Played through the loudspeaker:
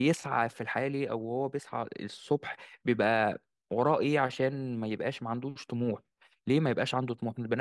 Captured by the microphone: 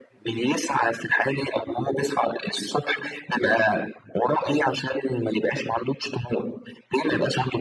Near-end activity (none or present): none